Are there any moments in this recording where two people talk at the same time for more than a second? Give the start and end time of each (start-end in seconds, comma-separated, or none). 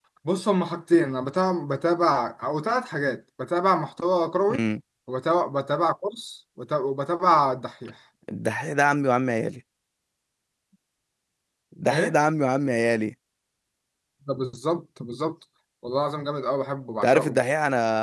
none